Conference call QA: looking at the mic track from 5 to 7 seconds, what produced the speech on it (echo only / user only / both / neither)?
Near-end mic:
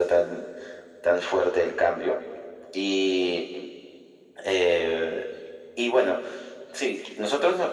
echo only